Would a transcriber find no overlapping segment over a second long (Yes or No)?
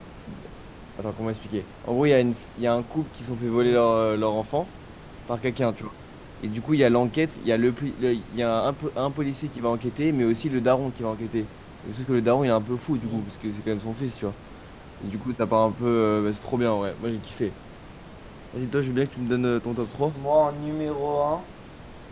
Yes